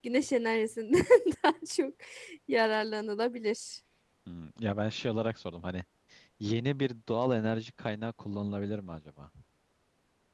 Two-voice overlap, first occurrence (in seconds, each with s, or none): none